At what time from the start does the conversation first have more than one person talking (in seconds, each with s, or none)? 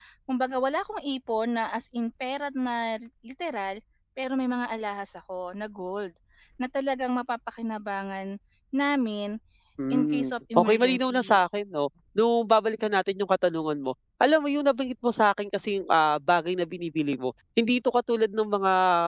9.9 s